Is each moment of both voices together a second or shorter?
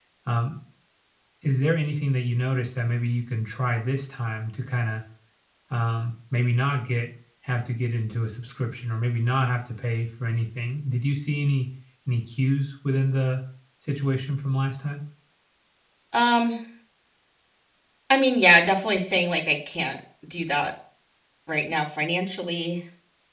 Yes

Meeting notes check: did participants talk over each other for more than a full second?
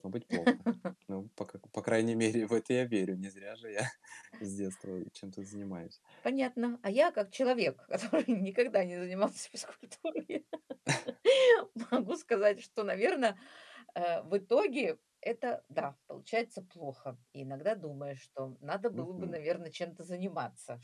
No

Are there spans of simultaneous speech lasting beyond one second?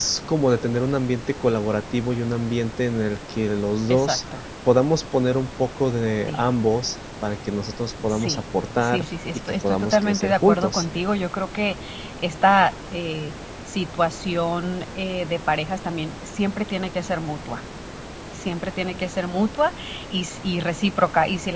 Yes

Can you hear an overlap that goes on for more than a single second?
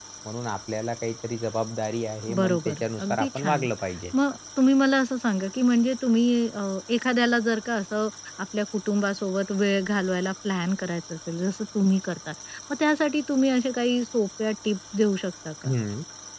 Yes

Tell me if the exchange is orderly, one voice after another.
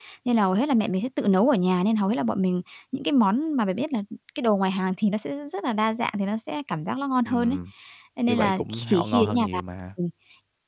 No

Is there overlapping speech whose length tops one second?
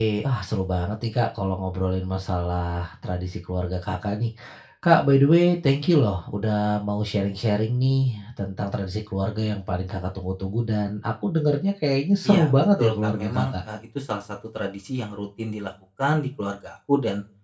Yes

